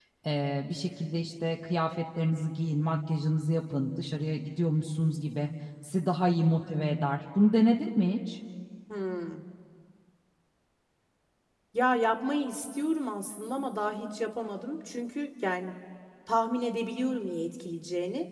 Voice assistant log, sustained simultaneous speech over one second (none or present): none